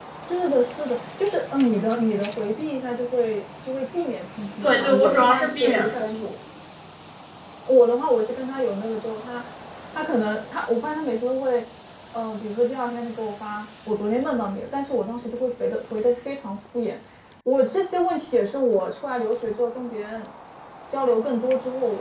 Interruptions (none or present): present